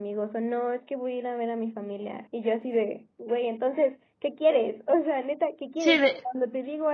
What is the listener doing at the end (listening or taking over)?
listening